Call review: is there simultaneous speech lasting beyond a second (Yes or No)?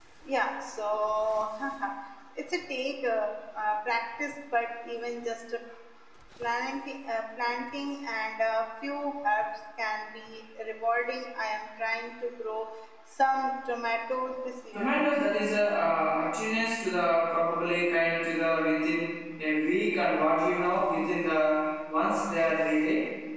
No